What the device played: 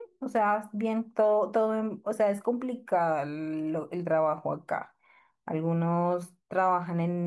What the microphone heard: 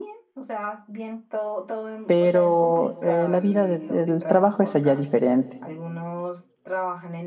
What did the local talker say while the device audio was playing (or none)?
pero eh, la vida de- del trabajo es allá diferente.